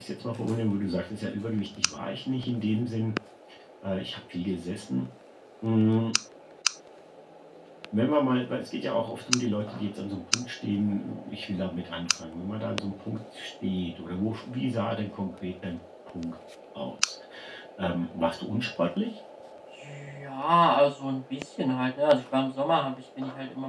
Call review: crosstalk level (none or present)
none